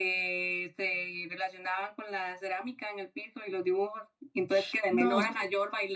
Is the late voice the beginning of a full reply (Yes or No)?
No